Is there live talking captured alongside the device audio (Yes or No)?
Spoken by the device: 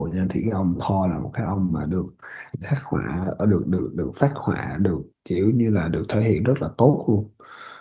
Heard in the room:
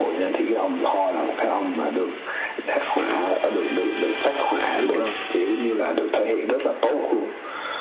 Yes